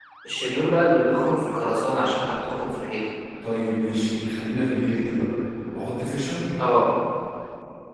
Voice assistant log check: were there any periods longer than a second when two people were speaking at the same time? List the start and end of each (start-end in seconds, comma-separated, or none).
none